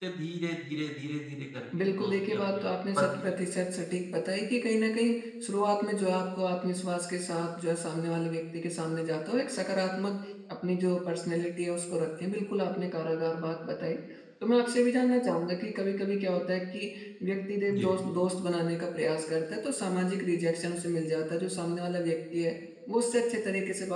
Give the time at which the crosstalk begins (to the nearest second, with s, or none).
2 s